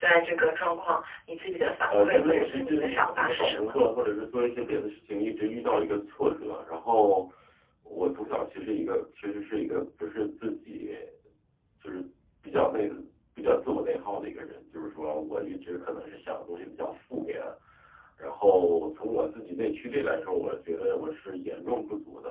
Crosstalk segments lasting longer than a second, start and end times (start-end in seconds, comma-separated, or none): 1.9-3.8